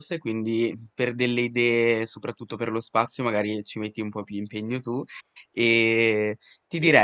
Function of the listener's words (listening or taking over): listening